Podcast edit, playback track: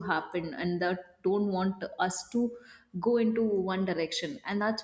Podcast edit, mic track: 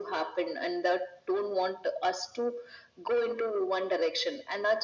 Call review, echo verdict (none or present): present